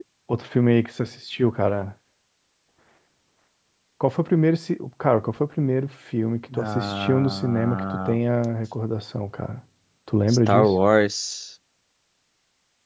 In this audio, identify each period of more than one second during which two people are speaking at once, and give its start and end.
6.5-8.2

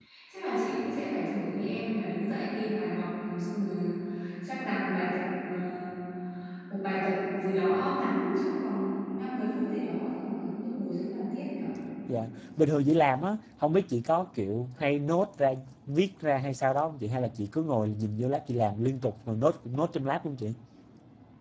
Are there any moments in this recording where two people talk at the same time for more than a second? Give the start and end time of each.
none

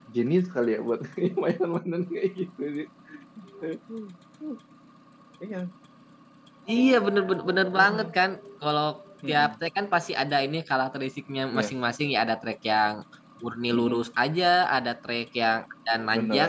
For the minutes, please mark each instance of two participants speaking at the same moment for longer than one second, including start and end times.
none

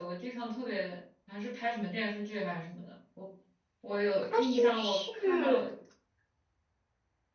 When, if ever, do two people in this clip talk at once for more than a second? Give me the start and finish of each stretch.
4.3-5.7

